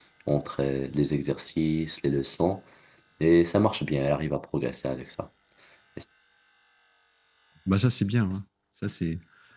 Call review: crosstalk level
none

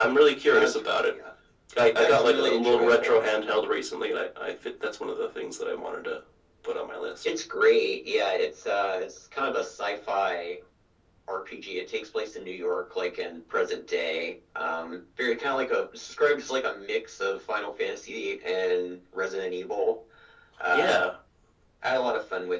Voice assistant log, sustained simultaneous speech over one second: present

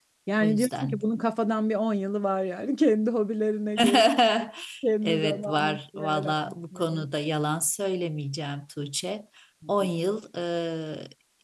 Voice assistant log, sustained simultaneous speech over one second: present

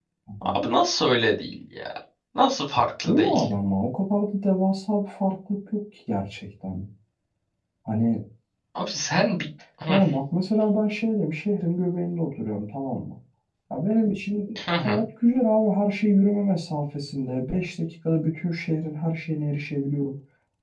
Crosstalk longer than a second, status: none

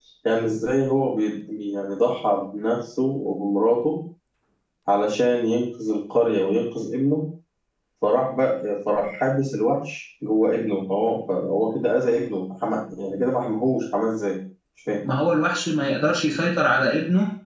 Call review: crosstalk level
none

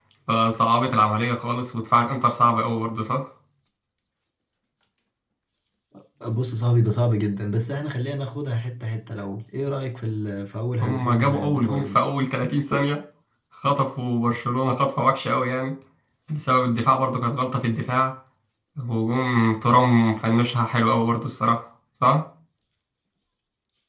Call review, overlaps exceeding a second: present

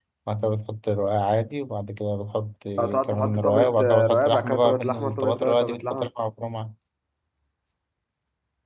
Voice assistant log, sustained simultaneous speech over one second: present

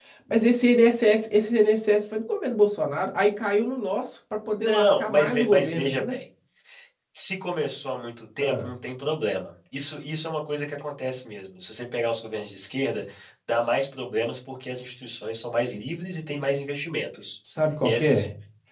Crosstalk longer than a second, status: present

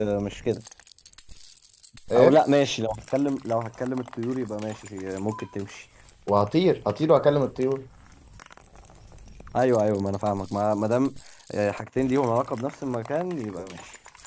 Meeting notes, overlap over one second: none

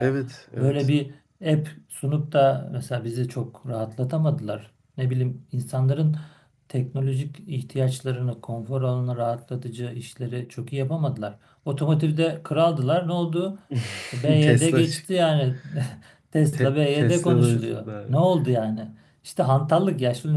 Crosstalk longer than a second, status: present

